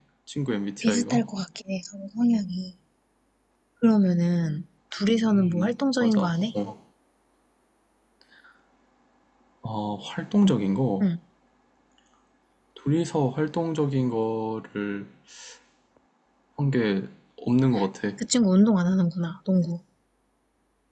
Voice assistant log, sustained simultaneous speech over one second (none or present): present